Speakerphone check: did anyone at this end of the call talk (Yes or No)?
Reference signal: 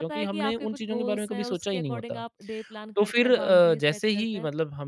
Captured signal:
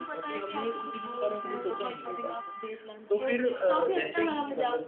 Yes